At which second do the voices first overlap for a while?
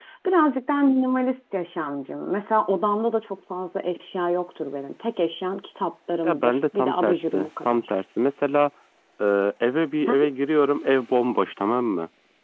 6.2 s

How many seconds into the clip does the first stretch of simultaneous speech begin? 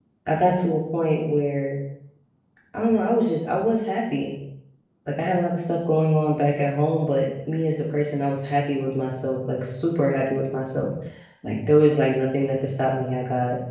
none

